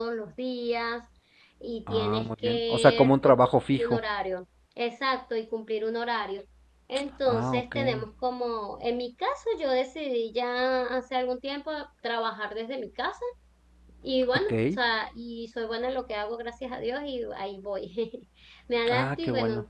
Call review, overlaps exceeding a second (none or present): present